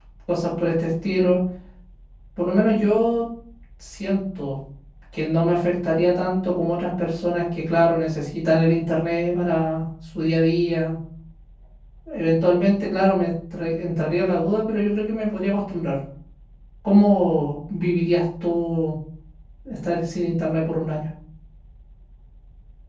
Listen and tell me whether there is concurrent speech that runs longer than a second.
No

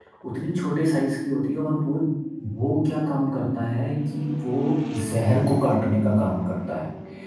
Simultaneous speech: No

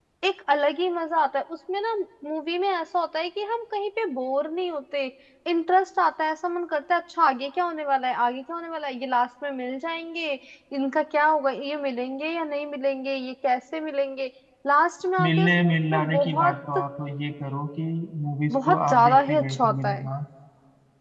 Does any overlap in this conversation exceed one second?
Yes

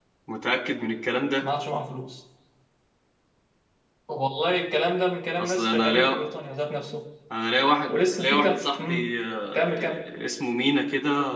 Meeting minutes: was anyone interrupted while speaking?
Yes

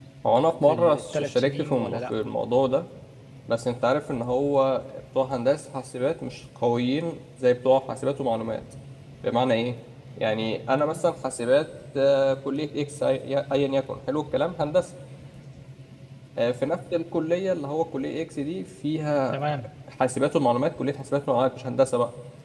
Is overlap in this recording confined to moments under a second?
No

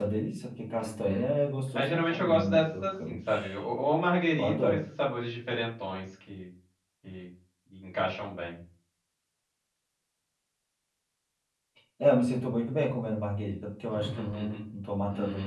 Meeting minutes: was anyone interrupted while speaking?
Yes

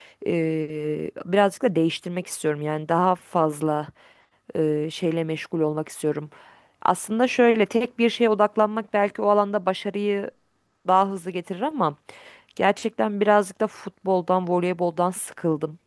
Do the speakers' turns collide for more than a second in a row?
No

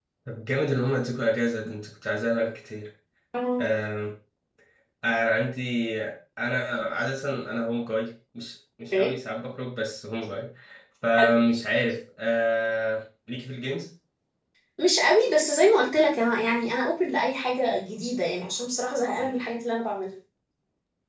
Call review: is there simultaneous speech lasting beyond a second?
No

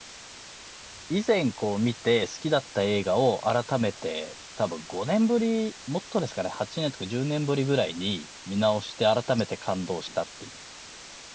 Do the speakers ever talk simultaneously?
No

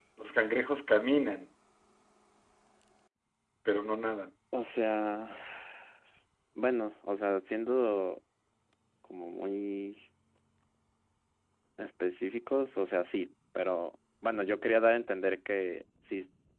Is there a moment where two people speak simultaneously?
No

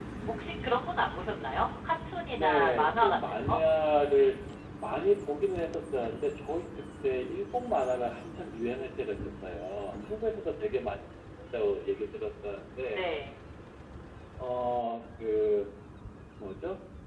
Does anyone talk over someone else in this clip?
Yes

